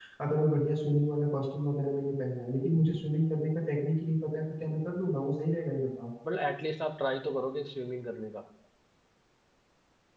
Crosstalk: none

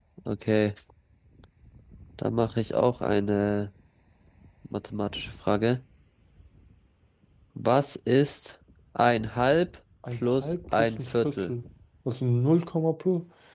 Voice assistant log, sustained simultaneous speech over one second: present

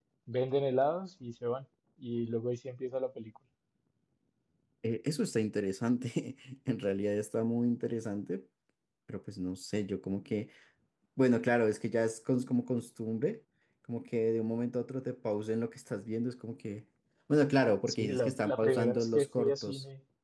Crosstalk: present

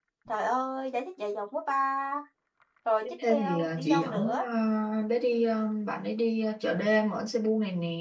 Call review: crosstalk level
present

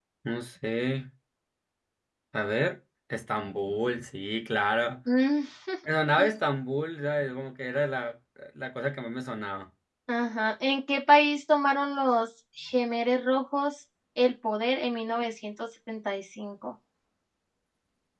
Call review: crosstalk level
none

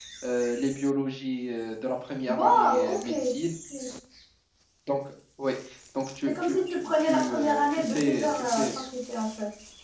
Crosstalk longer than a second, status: present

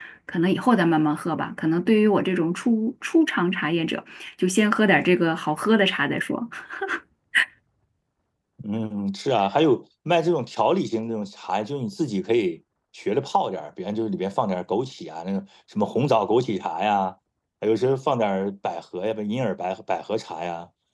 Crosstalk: none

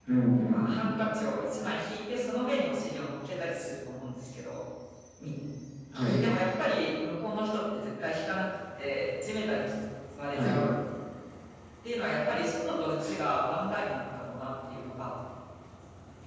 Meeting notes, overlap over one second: none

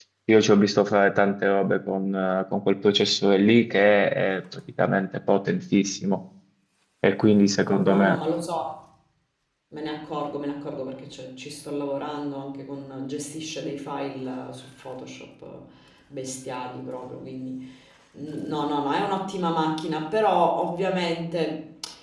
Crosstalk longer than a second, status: none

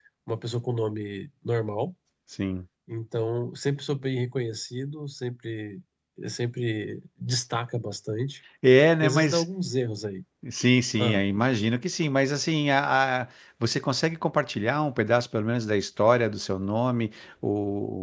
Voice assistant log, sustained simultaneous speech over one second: none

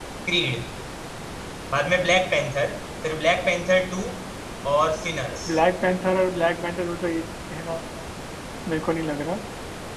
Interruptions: none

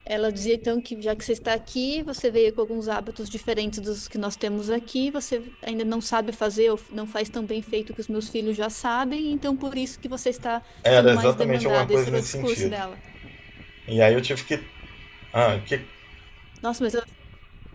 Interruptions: present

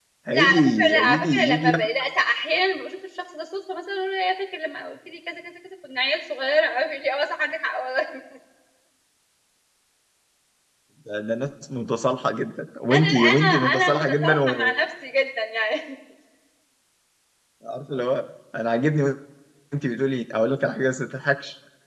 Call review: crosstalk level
present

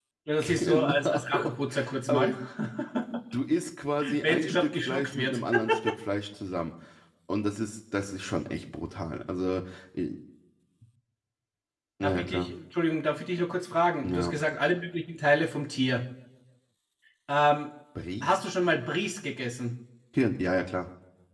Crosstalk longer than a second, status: present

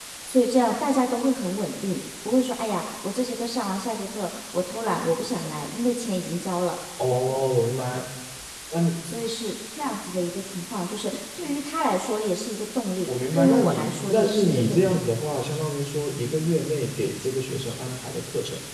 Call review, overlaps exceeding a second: present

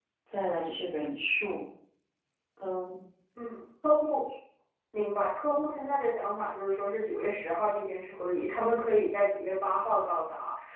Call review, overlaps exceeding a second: none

